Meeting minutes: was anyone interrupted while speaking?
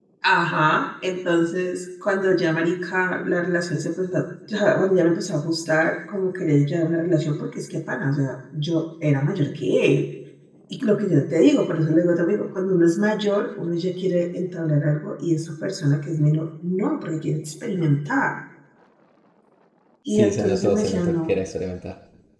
Yes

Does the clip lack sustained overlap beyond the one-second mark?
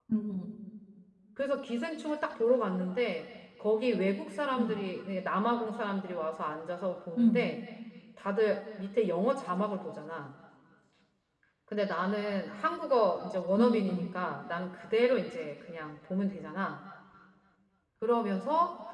Yes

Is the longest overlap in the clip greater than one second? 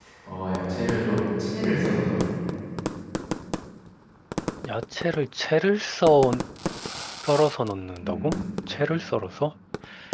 No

